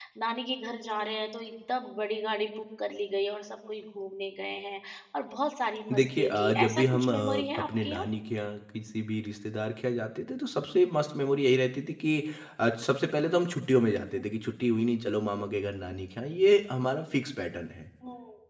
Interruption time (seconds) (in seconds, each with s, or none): 5.9 s